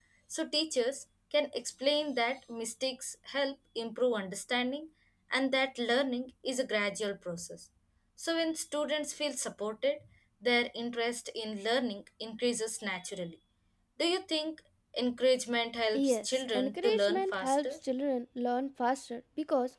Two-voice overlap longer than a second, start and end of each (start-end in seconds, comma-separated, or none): 15.9-17.8